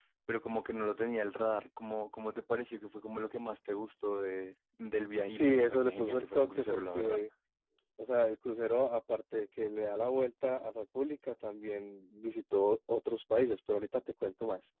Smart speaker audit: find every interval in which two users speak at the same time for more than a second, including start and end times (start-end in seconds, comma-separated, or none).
5.3-7.2